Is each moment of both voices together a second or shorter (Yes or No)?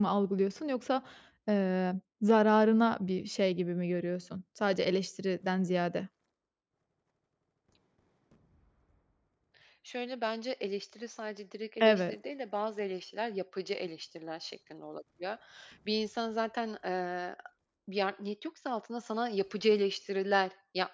Yes